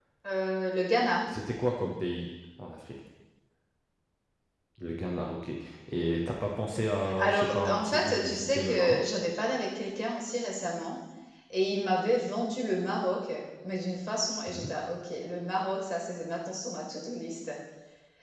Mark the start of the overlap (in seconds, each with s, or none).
7.1 s